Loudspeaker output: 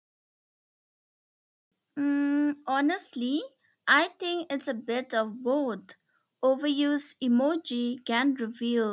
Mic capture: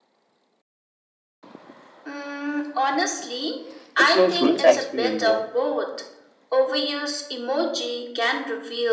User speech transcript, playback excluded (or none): with close friends i experience more